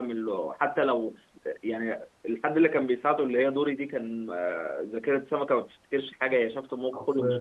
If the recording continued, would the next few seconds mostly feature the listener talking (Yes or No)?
No